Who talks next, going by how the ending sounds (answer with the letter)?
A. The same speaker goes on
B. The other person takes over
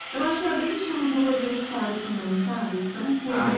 B